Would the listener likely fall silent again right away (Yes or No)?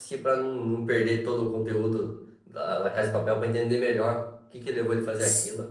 No